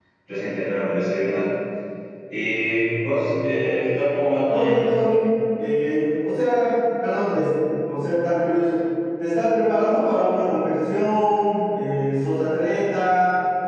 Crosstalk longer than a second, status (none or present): none